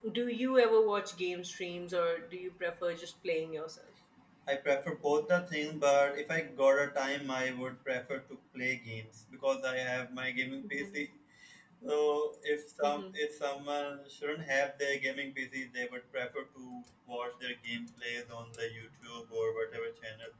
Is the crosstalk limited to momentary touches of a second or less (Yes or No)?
Yes